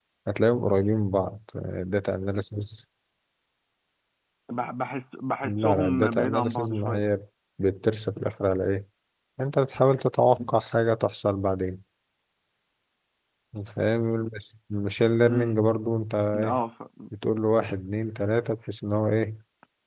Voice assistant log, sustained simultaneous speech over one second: present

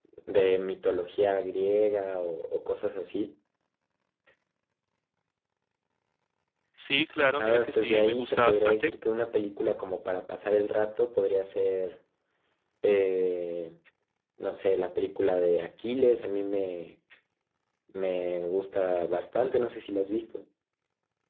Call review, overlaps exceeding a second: present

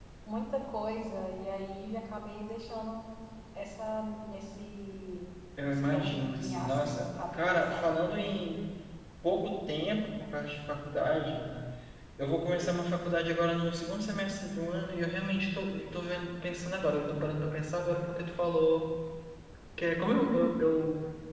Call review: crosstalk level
present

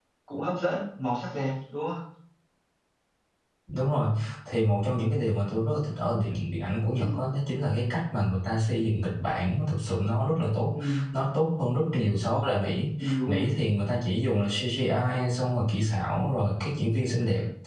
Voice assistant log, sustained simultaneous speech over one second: none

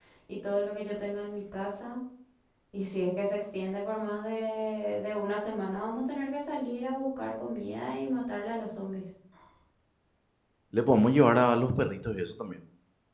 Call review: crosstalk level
none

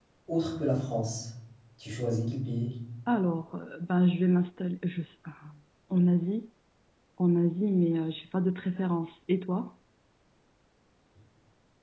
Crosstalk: none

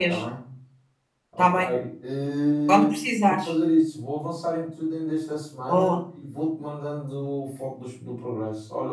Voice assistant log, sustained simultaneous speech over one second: none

